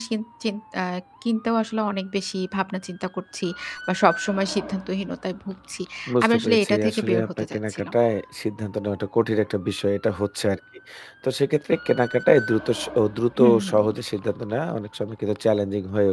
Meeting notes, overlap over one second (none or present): present